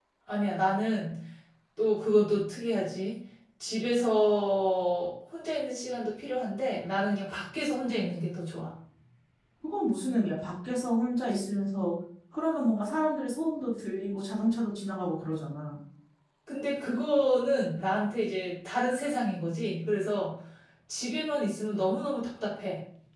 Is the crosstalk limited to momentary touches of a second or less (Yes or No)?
Yes